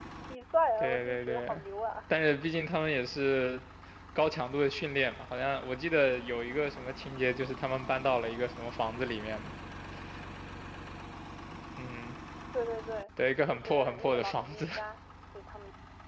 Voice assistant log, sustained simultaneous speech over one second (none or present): present